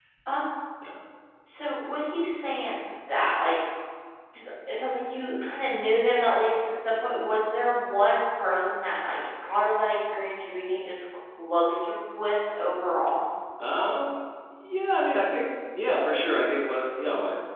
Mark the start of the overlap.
none

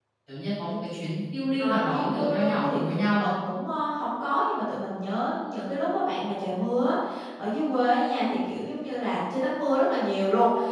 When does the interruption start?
1.6 s

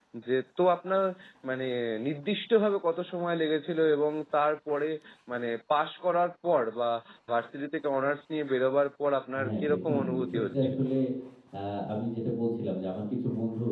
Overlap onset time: 9.3 s

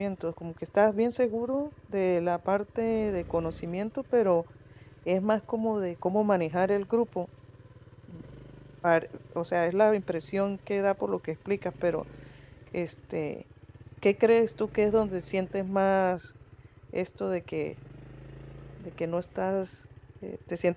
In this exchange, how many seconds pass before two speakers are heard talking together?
none

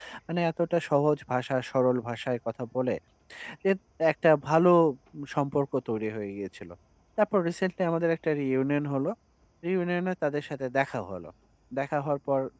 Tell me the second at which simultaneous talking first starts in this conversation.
none

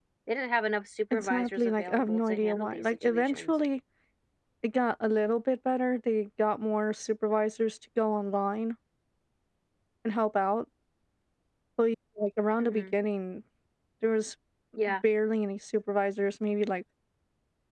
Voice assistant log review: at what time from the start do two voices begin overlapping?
1.1 s

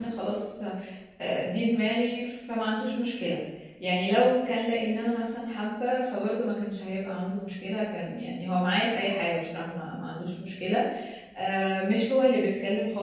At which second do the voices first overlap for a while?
none

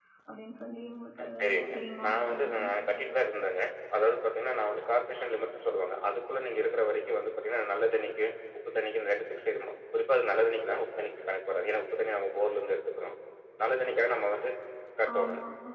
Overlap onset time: 1.2 s

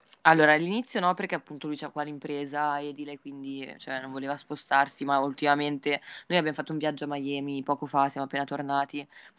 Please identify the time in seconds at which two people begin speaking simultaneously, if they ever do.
none

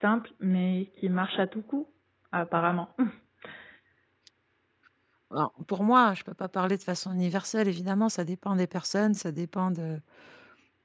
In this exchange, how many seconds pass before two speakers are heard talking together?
none

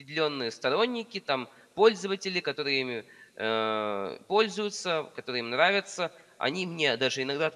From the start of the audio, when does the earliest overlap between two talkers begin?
none

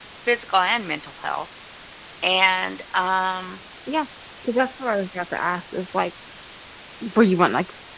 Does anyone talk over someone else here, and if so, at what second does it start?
none

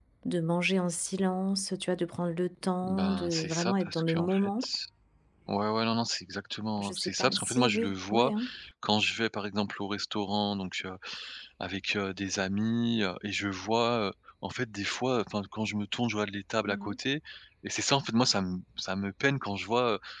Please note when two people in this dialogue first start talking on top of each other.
2.8 s

